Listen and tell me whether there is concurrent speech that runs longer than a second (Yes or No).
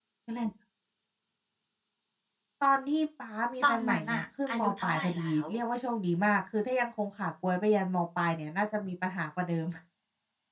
Yes